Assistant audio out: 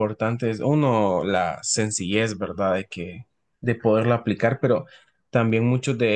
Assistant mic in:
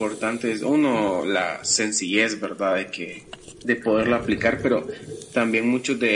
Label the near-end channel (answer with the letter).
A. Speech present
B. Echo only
B